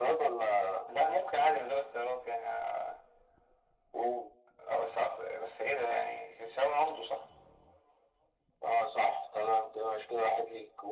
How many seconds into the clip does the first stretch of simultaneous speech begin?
none

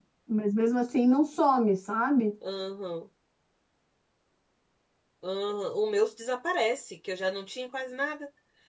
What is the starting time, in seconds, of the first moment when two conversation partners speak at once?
none

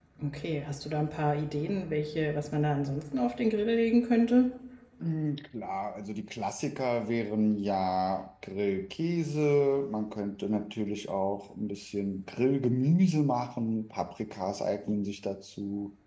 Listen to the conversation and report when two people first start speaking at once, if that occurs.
none

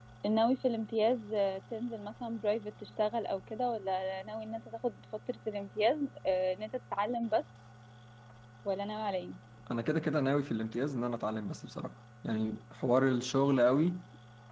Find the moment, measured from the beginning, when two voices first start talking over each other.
none

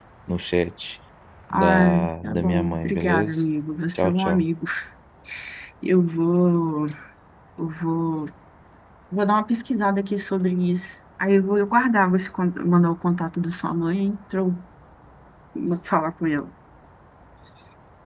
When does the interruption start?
1.5 s

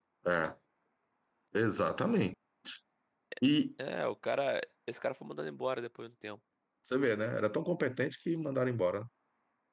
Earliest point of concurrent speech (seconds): none

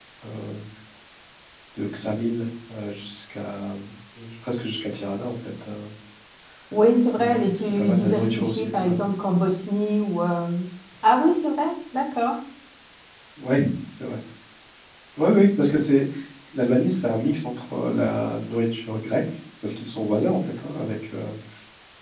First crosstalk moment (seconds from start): 7.0 s

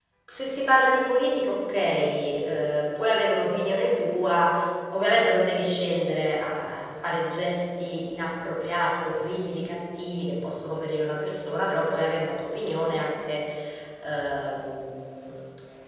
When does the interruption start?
none

